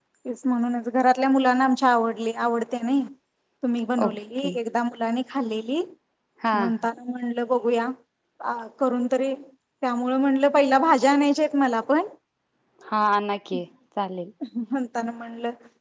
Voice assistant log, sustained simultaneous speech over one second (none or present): none